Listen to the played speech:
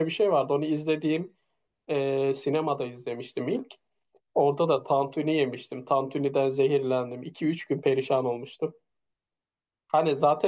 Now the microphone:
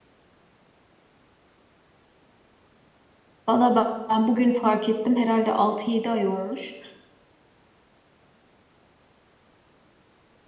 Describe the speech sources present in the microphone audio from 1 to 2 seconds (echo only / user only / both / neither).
neither